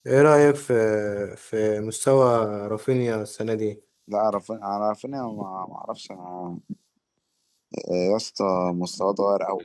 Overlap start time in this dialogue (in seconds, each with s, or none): none